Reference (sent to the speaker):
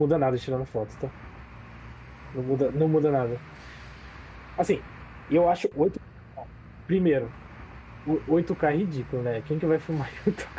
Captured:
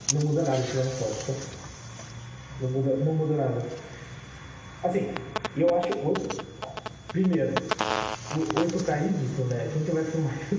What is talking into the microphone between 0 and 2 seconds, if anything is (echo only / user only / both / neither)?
echo only